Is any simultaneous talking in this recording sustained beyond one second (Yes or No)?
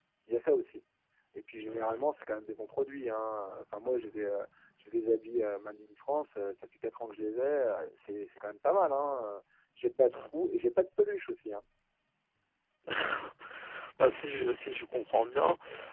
No